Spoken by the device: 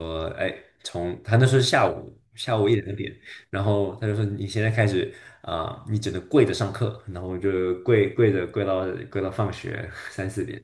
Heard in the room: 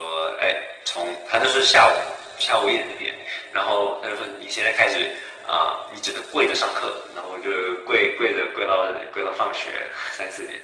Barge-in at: none

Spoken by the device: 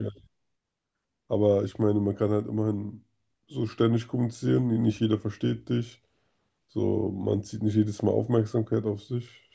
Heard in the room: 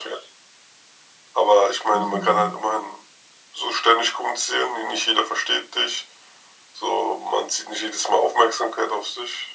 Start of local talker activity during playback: 1.9 s

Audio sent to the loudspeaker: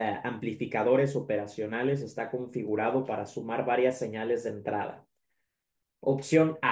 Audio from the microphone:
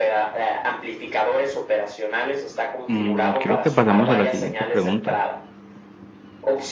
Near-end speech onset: 2.9 s

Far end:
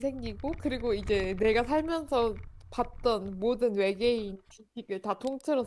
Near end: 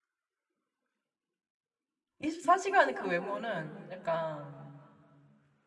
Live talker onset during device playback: 2.2 s

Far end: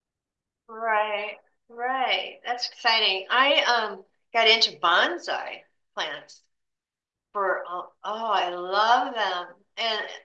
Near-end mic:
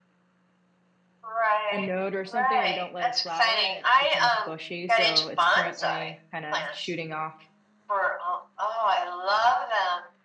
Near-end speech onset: 1.7 s

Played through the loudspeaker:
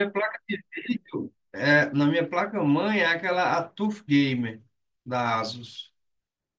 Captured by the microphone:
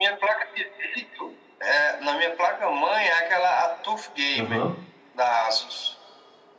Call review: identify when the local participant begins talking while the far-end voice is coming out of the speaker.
4.4 s

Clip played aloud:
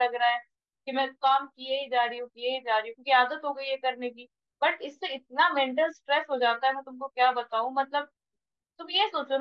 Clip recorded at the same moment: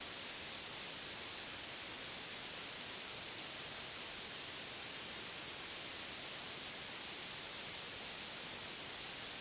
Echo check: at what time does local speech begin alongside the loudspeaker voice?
none

